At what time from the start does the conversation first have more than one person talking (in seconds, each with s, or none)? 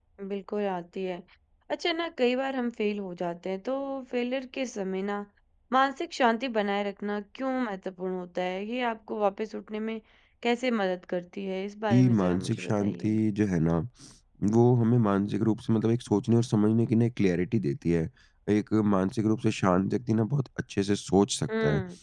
11.9 s